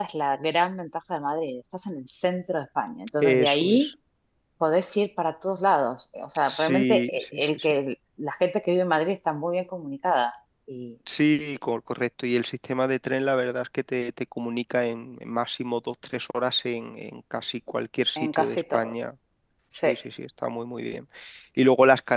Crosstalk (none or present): present